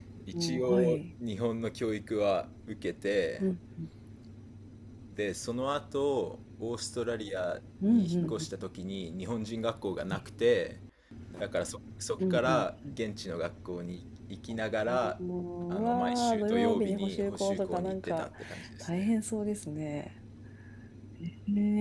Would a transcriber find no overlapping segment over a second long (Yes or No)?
No